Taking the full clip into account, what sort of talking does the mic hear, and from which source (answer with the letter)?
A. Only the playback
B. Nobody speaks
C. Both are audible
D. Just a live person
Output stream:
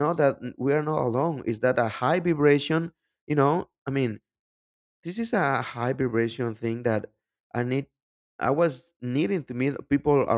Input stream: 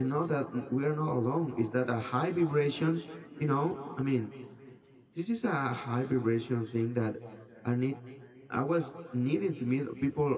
A